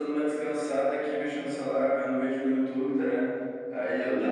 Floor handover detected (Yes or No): No